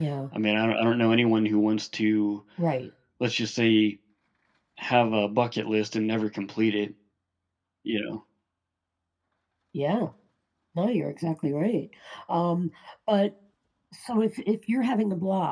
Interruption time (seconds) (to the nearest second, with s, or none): none